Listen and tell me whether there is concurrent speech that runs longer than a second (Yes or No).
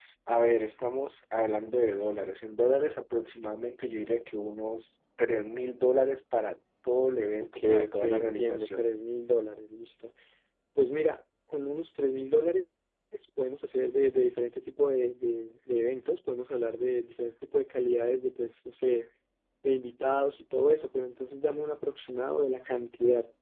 Yes